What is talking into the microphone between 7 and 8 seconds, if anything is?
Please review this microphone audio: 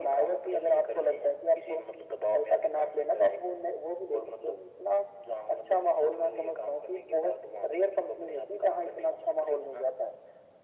echo only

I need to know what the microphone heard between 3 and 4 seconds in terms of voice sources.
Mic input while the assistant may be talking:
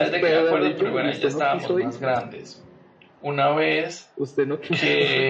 user only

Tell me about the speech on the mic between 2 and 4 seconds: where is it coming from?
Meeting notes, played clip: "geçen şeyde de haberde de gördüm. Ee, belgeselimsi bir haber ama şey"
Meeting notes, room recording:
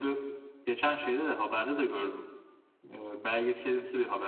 echo only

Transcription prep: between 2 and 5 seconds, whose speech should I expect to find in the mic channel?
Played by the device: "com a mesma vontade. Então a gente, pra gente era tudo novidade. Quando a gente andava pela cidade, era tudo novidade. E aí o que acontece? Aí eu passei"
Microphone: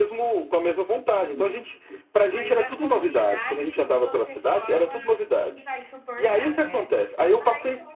both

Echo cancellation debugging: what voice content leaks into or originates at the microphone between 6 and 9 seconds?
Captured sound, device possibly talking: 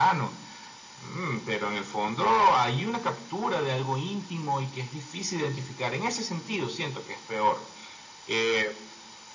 echo only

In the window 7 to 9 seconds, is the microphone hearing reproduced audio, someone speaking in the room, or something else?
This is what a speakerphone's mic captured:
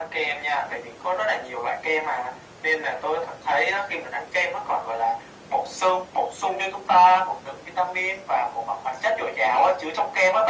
echo only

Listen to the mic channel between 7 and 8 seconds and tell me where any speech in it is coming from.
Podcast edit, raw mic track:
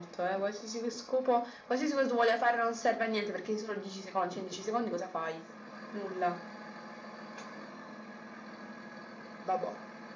neither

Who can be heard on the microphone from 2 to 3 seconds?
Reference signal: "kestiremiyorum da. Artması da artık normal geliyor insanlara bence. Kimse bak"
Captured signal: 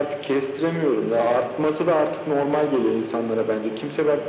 echo only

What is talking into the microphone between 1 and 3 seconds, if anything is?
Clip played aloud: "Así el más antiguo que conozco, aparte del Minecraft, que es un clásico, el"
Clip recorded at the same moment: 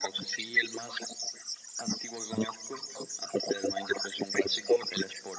echo only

